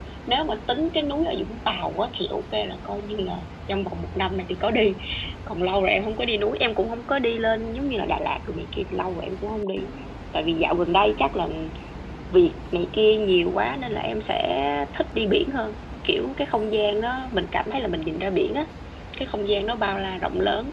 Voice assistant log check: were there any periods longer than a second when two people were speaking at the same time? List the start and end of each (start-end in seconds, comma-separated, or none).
none